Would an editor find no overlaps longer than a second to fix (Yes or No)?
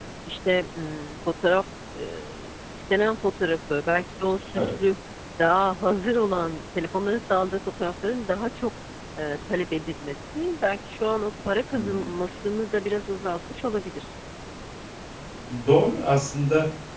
Yes